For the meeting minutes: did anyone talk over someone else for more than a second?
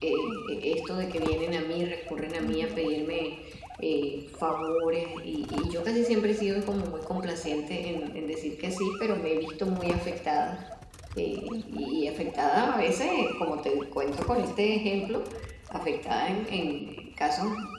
No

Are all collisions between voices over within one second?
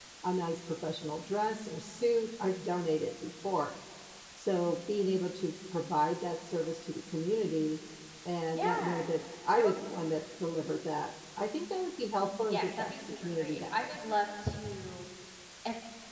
No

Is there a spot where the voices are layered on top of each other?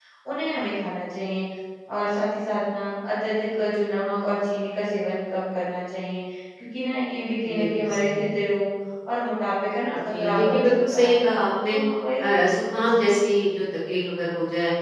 Yes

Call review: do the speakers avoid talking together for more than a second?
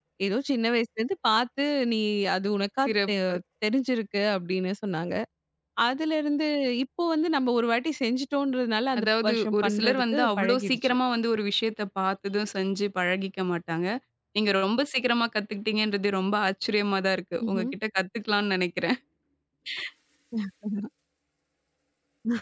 No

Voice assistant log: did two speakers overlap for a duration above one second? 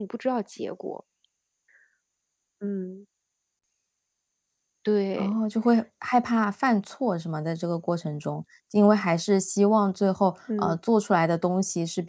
No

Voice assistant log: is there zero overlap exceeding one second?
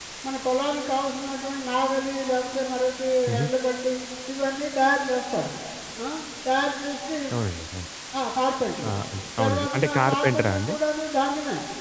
No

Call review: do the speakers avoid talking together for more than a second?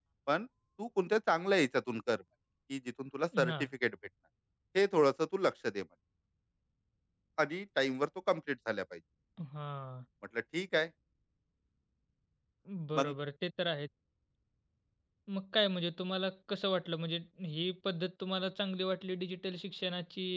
Yes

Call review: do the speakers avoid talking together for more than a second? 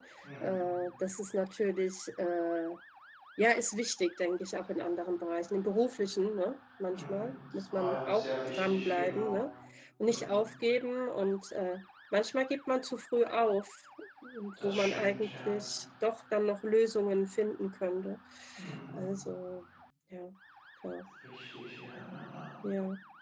No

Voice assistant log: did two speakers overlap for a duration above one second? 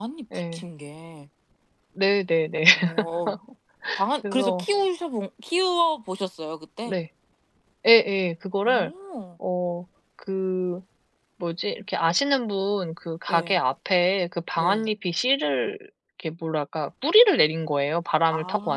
No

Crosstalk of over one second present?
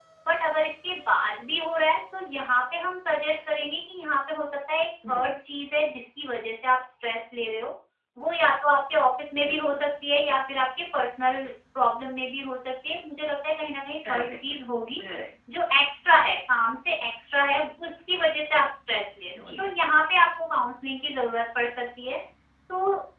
No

